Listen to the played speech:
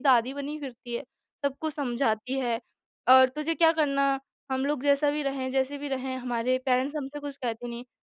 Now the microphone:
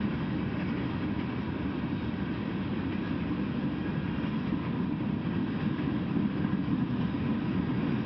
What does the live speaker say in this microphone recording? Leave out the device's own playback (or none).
none